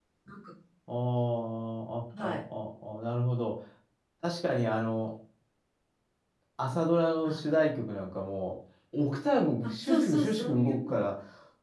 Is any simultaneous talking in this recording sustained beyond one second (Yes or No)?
Yes